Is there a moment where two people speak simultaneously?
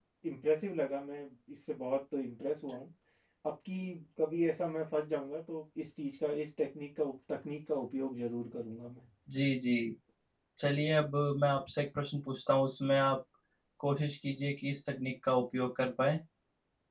No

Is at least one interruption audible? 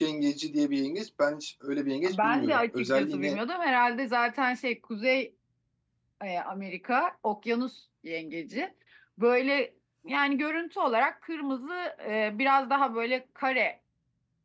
Yes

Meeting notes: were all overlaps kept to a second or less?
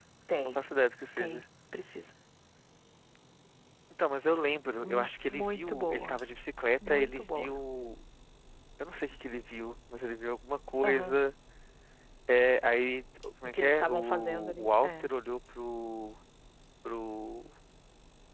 No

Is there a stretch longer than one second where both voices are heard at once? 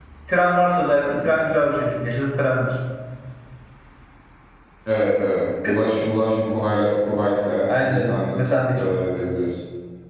Yes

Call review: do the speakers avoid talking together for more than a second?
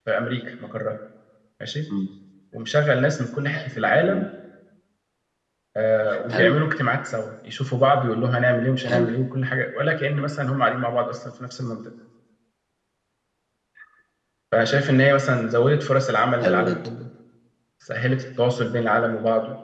Yes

